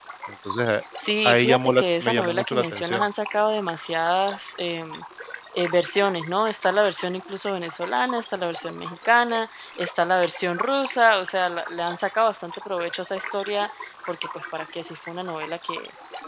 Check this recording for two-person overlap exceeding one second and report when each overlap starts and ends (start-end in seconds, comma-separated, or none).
1.2-3.0